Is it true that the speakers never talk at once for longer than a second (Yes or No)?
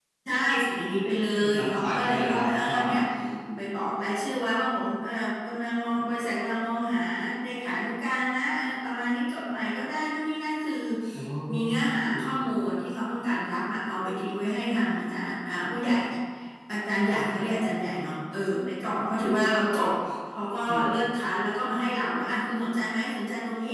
No